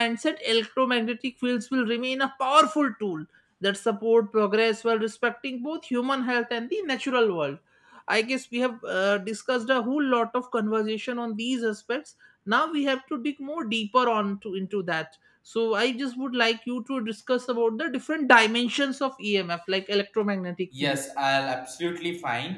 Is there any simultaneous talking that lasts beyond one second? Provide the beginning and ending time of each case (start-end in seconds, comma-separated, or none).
none